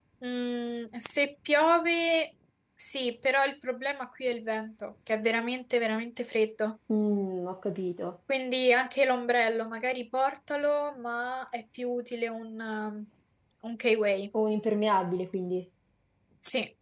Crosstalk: none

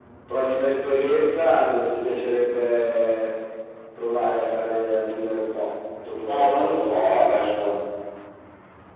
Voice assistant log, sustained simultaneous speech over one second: present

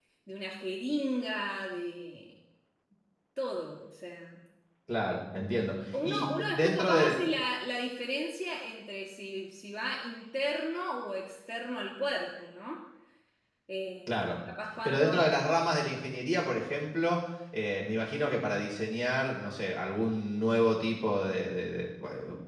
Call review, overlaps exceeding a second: present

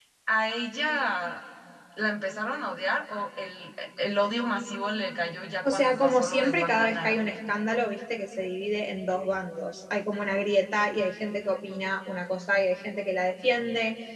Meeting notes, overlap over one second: present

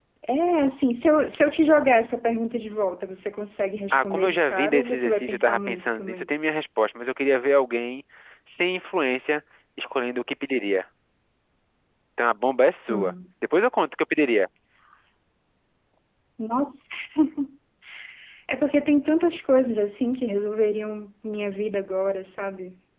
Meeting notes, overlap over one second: present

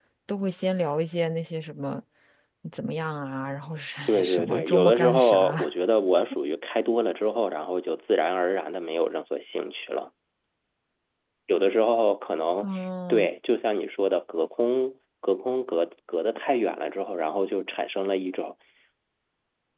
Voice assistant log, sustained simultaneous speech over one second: present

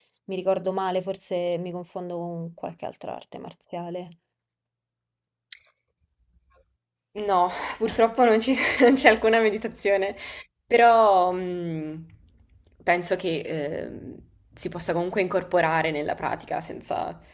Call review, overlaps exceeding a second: none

